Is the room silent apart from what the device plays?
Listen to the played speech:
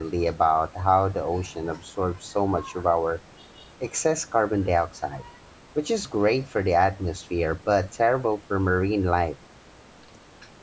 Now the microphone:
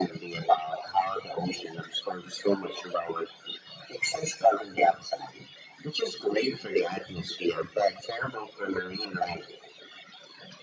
Yes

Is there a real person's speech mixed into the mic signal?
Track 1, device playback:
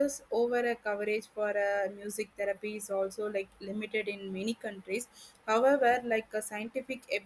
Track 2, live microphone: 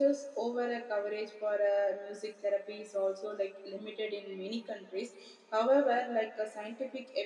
No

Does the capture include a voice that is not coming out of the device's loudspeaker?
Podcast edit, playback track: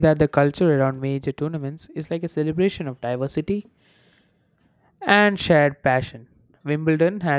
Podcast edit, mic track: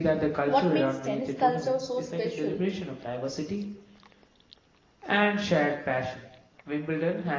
Yes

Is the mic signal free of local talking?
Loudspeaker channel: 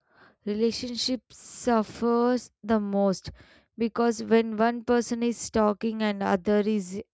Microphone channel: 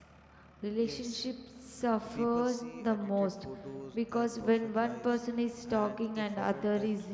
No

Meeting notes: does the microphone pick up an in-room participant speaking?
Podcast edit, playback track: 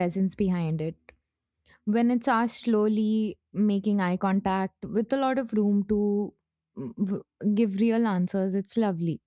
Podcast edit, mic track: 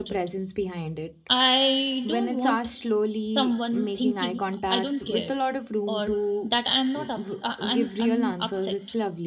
Yes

